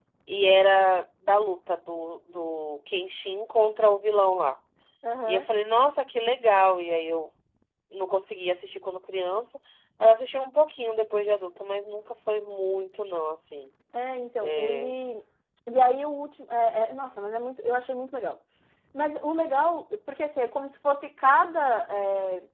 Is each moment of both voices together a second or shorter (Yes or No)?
Yes